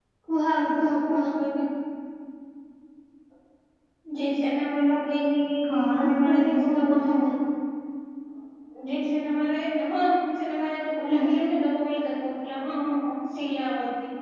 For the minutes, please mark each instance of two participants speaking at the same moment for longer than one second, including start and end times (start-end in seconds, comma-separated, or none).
5.7-7.1